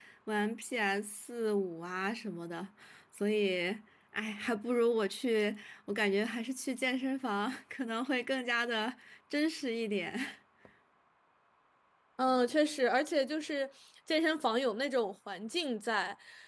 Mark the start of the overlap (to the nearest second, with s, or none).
none